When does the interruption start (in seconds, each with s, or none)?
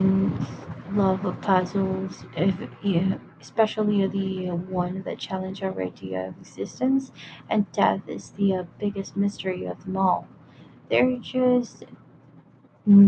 none